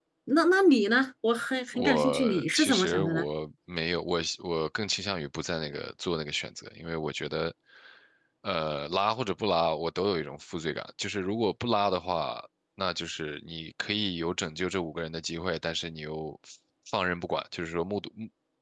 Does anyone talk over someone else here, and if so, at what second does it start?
1.7 s

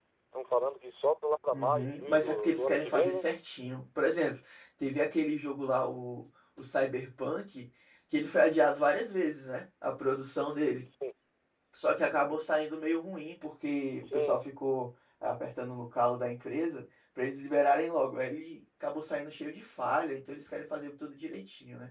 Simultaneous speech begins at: 1.5 s

